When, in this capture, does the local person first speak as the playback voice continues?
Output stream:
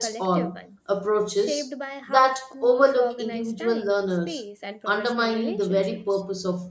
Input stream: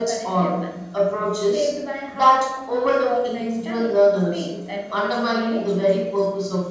none

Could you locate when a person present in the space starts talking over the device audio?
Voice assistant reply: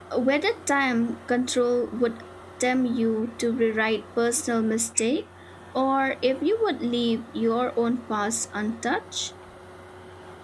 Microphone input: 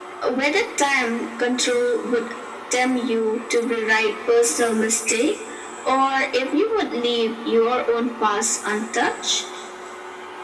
none

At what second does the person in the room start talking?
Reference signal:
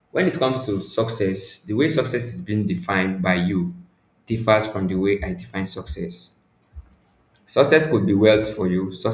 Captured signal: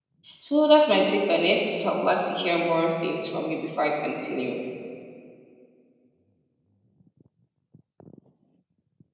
0 s

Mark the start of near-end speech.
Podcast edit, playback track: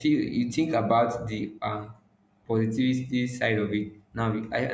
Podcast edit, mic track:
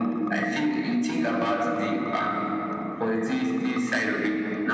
none

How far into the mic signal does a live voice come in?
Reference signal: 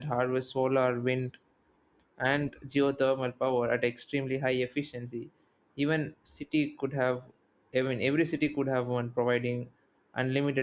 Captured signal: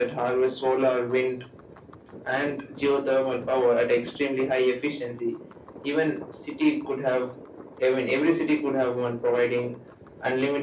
none

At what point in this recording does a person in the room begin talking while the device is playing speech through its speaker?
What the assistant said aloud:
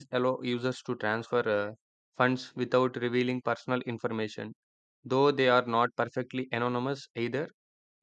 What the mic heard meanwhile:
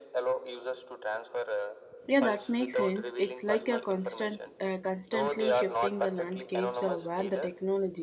2 s

